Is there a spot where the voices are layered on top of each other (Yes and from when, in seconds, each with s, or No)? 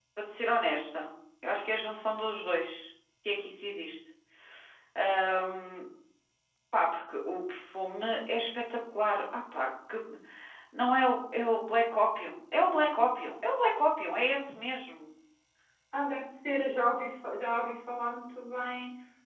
No